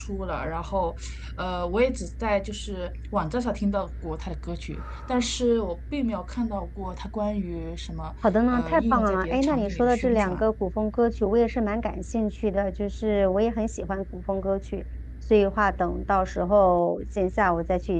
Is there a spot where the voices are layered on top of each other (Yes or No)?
Yes